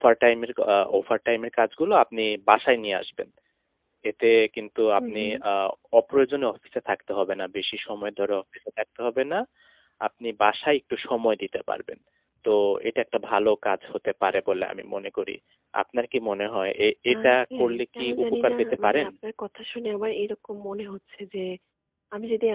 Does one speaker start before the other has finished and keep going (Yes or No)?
Yes